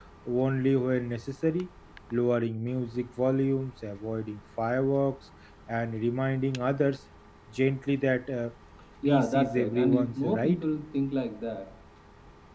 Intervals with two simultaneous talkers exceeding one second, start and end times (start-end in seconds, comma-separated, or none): 9.0-10.6